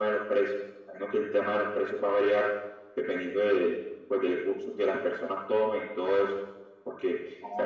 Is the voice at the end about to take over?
No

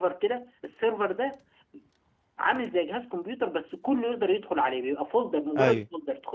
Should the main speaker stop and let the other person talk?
No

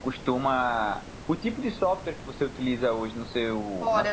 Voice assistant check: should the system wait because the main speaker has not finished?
No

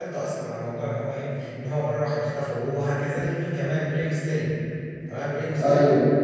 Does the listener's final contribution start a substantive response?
No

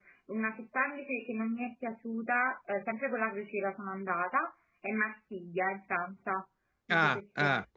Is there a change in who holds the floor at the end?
Yes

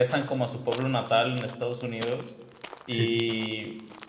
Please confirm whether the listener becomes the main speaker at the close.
No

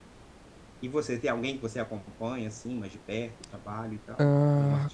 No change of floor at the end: No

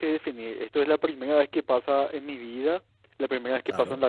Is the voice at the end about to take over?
No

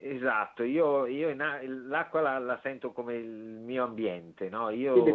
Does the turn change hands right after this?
Yes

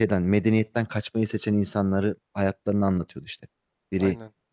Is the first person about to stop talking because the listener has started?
No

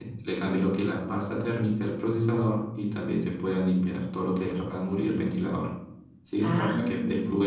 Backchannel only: Yes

